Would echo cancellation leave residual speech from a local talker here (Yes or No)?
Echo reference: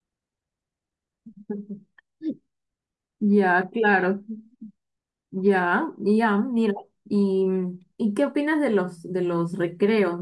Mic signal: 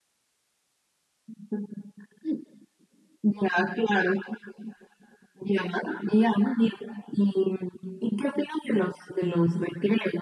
No